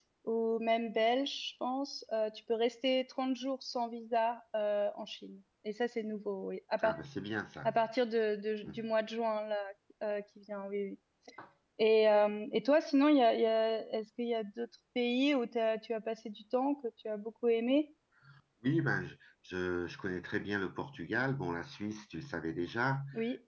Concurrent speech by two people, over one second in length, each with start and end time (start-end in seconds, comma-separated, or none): none